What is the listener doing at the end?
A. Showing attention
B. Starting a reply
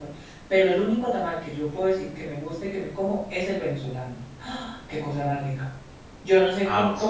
A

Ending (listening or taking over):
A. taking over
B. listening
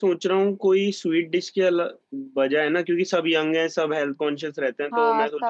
B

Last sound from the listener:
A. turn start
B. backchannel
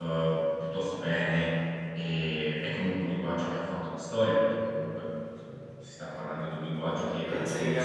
A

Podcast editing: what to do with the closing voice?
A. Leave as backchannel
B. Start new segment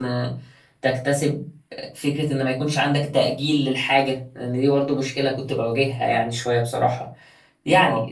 A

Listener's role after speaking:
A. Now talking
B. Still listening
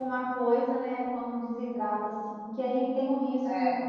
B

